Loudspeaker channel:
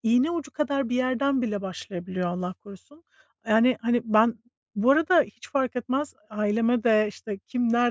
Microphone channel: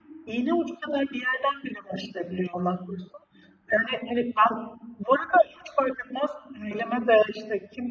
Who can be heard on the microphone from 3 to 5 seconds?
echo only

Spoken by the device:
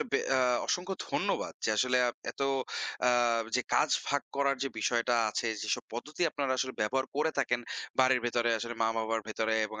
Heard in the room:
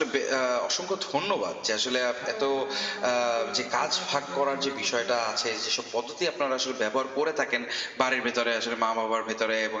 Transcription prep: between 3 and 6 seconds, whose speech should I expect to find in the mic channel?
both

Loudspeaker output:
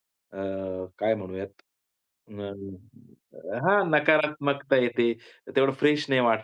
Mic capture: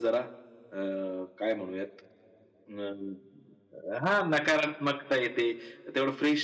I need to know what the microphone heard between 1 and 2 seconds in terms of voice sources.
echo only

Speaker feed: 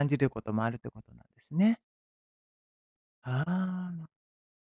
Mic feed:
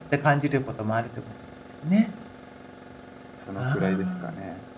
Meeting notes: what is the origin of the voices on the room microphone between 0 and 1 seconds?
echo only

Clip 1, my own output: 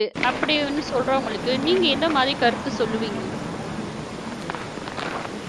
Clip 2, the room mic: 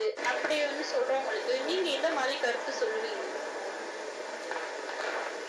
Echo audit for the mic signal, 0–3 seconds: echo only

